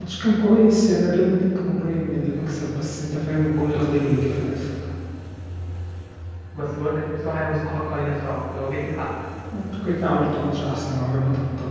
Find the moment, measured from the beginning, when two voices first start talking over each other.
none

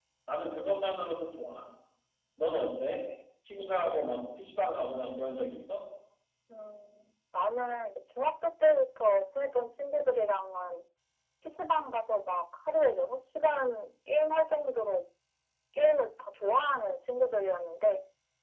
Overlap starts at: none

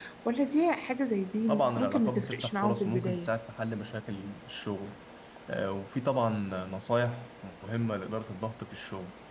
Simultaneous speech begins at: 1.5 s

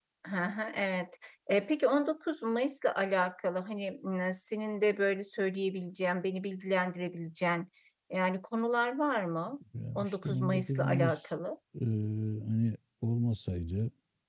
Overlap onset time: 9.9 s

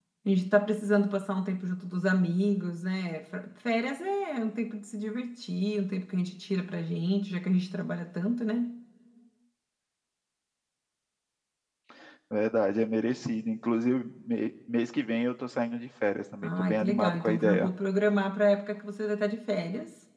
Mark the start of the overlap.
16.4 s

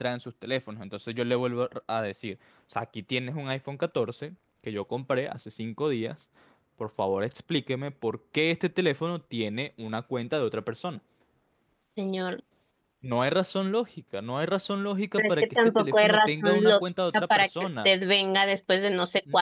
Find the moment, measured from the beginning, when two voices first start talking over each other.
15.2 s

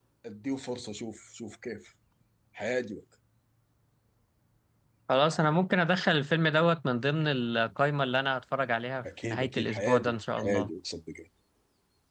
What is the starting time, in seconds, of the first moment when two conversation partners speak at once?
9.0 s

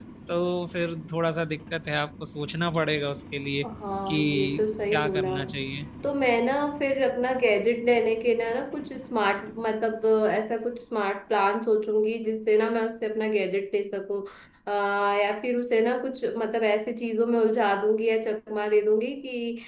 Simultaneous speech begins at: 4.1 s

